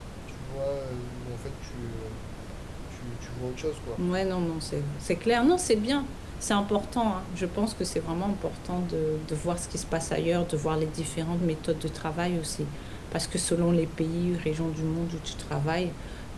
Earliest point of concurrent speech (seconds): none

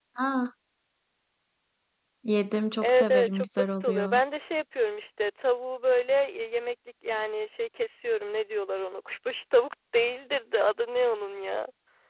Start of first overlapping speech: 2.8 s

